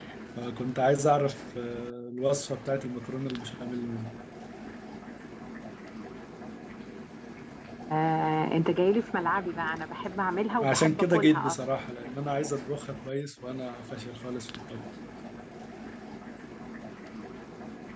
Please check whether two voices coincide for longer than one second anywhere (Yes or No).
Yes